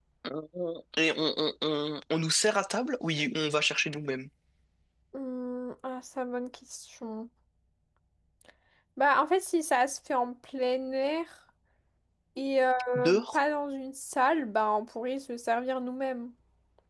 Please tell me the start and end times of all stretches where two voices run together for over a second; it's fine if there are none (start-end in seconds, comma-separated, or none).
none